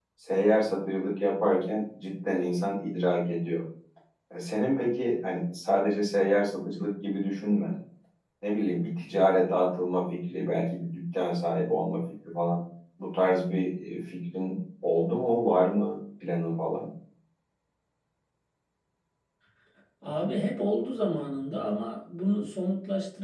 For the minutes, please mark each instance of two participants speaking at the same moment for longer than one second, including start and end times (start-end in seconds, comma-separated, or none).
none